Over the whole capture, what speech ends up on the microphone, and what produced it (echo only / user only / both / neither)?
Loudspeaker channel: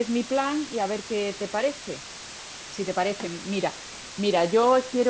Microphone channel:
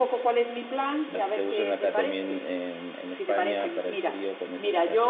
both